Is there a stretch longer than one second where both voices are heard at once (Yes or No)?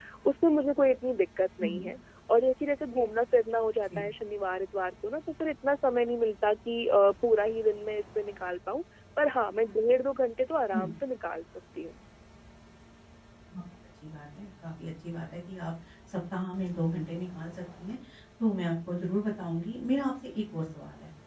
No